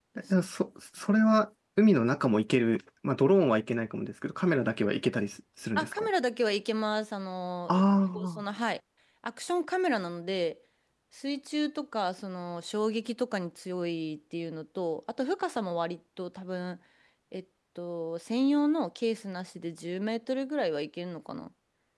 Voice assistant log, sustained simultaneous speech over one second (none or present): none